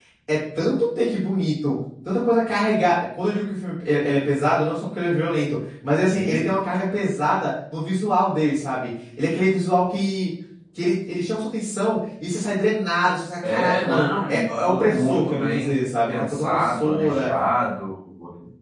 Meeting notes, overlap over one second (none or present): present